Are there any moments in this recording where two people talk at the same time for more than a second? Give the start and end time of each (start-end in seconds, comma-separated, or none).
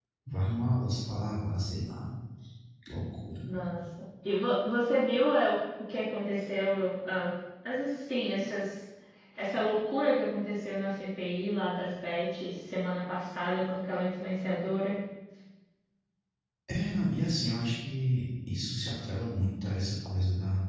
none